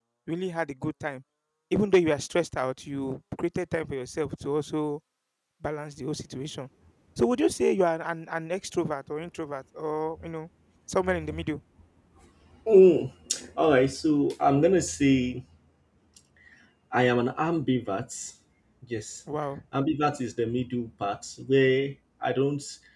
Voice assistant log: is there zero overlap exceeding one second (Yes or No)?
Yes